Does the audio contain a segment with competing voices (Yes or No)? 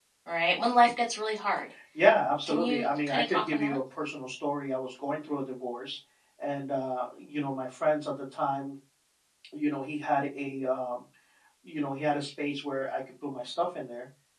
Yes